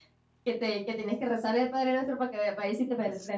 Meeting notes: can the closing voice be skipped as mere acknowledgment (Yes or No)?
No